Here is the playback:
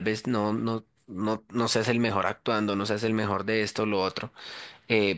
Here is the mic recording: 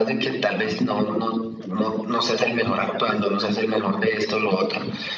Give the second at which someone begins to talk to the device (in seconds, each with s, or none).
none